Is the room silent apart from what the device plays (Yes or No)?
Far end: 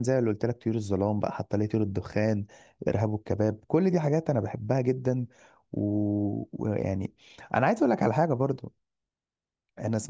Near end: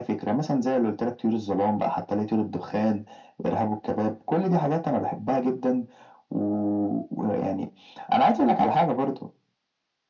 Yes